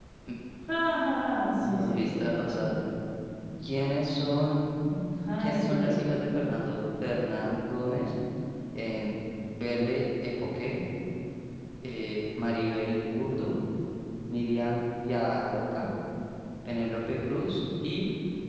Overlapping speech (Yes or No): Yes